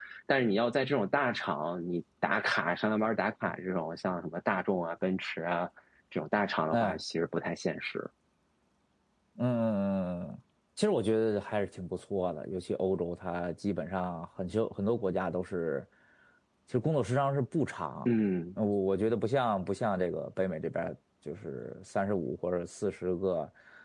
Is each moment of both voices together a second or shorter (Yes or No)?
Yes